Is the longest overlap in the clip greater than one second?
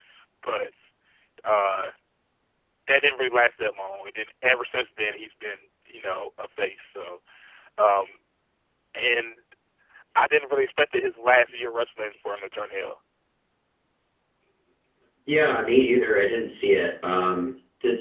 No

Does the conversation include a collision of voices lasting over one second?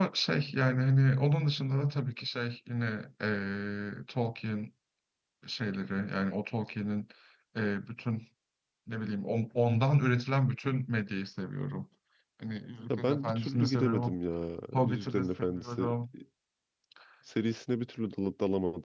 Yes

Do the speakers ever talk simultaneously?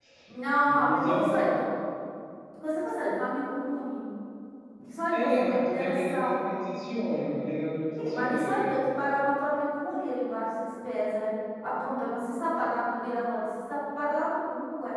Yes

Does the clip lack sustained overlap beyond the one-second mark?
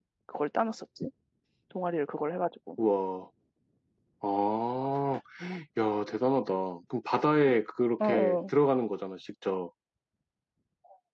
Yes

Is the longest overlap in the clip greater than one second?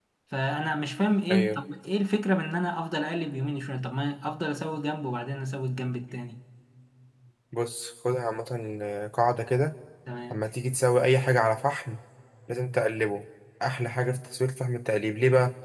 No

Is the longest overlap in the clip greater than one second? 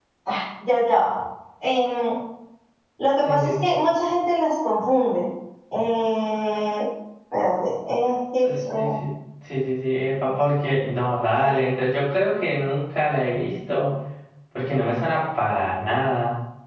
No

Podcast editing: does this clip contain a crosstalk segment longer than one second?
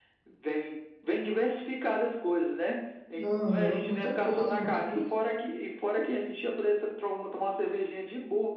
Yes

